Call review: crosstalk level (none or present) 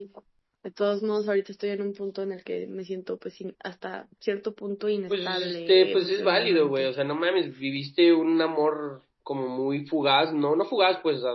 present